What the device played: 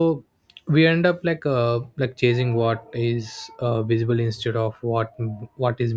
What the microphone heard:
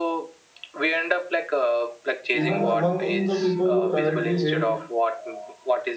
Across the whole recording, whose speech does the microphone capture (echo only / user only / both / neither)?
both